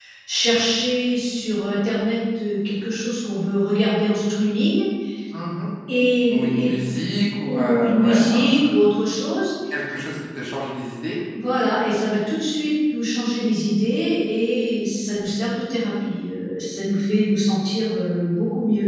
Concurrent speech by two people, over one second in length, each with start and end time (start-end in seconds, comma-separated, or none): 7.4-8.7